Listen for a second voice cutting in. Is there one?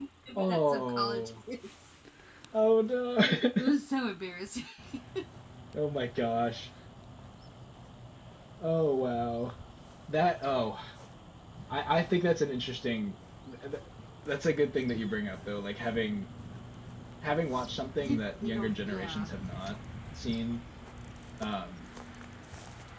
Yes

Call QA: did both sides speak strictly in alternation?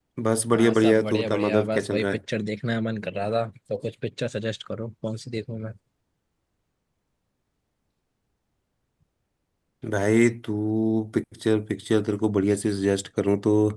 No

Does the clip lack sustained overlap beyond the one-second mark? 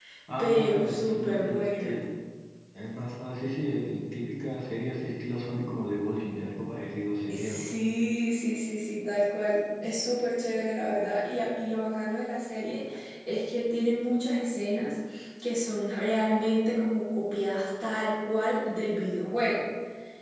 No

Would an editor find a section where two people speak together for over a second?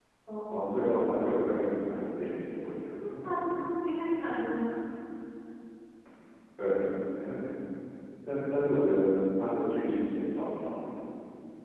No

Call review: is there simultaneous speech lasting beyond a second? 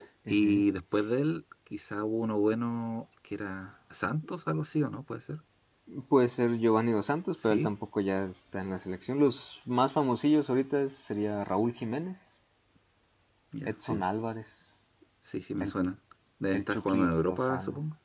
Yes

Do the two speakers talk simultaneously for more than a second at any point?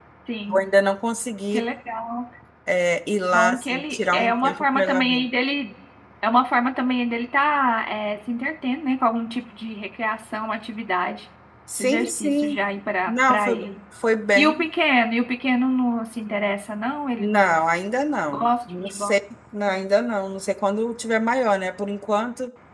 Yes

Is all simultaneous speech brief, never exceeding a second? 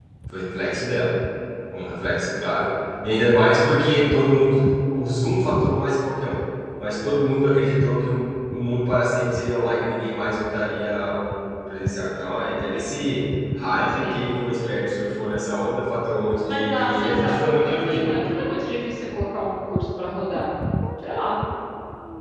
No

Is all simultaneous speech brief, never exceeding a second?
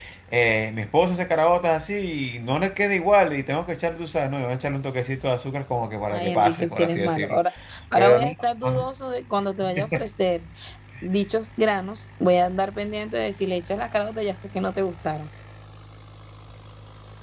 No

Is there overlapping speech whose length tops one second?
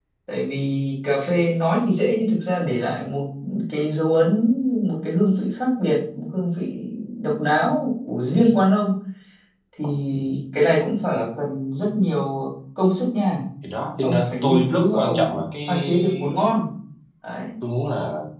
Yes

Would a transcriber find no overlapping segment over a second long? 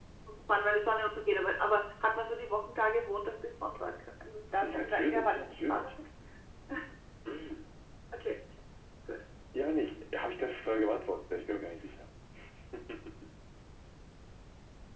No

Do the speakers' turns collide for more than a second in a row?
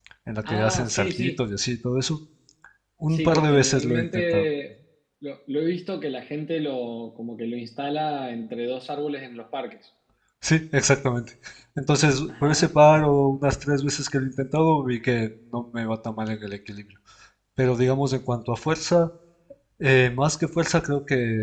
Yes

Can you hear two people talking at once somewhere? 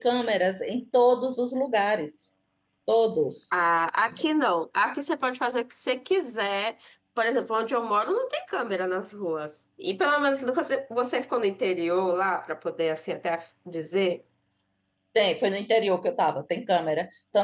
No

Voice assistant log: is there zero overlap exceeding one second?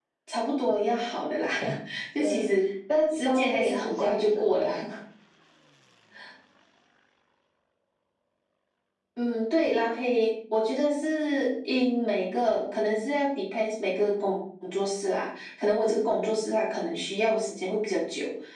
No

